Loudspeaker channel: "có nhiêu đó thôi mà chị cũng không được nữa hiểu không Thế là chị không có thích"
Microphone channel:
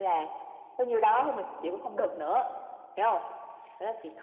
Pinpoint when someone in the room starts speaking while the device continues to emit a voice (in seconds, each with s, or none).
none